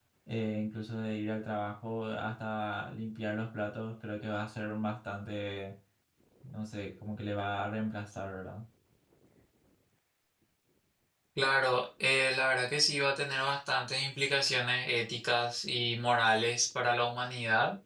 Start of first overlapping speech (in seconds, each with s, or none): none